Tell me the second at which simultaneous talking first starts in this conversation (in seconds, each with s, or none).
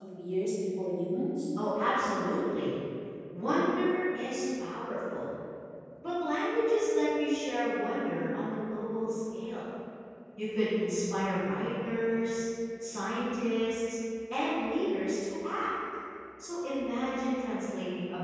none